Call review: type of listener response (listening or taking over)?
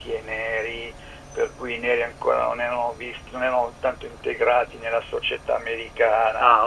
taking over